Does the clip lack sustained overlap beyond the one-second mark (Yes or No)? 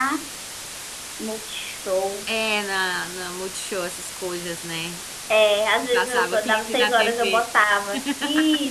No